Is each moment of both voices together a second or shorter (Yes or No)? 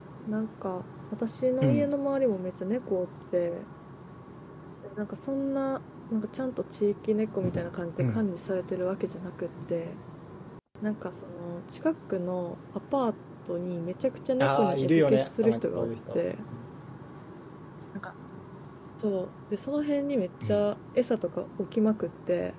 No